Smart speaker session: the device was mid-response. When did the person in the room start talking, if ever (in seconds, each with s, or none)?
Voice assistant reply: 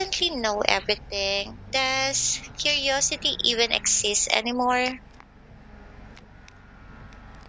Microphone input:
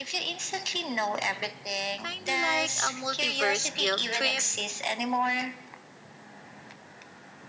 2.0 s